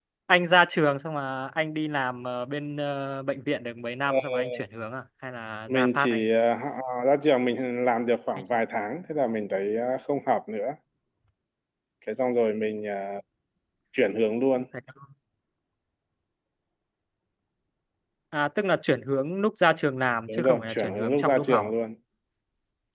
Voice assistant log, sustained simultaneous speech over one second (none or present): present